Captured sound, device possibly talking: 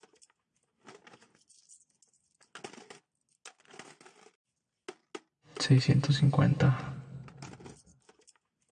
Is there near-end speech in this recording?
Yes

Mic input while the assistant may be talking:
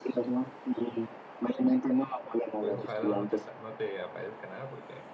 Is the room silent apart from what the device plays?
No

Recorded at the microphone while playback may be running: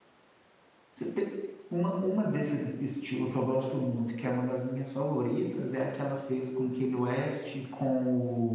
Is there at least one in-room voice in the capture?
Yes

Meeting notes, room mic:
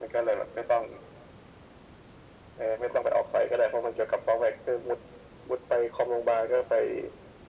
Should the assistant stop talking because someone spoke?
No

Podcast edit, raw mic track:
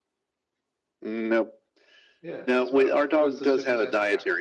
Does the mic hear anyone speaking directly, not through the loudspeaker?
Yes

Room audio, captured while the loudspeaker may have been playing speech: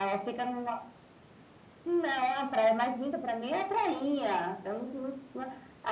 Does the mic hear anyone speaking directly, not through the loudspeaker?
No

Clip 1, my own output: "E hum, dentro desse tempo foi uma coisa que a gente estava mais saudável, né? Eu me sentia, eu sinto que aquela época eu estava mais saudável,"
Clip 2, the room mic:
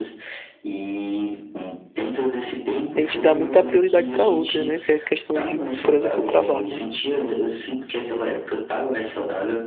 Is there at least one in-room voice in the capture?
Yes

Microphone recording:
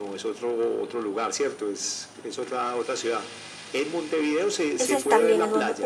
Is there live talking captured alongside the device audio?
Yes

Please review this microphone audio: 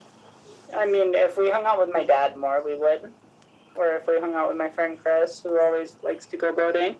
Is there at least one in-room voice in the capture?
No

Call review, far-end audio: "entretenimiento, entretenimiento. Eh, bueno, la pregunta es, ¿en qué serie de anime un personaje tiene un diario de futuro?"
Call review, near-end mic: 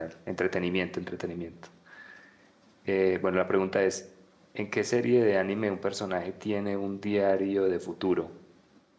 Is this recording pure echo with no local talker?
Yes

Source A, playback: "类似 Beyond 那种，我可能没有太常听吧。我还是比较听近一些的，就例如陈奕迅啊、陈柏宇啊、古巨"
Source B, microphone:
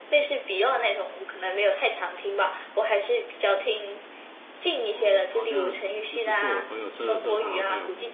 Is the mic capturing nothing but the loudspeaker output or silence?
No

